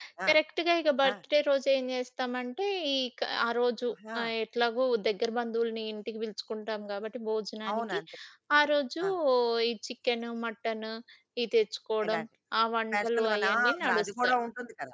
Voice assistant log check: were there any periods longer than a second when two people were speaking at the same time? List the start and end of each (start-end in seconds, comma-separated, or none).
12.9-14.4